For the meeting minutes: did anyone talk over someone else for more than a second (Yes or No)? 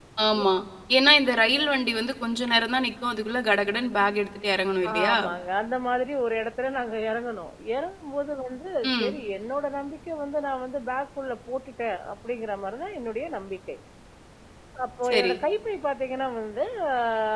No